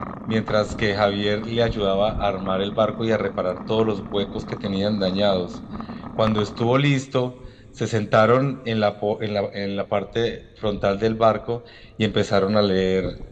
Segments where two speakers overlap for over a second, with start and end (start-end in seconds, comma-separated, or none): none